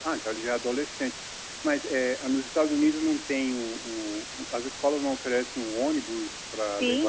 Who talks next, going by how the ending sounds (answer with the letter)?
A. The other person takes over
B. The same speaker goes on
A